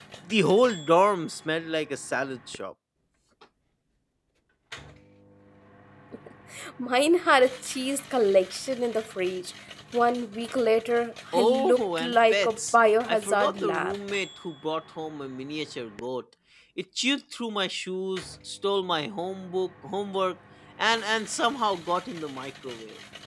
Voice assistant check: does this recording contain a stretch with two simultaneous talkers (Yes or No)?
Yes